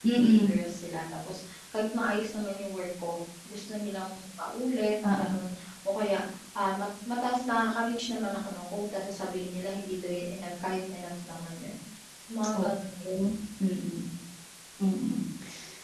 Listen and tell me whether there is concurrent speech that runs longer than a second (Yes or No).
No